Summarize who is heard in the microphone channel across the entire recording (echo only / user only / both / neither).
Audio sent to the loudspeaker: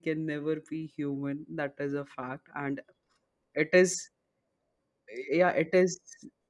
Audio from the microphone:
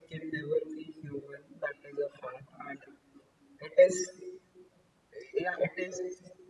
echo only